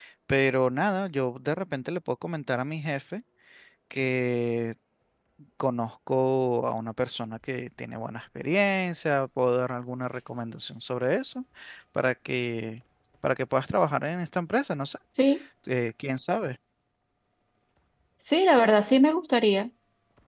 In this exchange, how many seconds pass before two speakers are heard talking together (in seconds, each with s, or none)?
none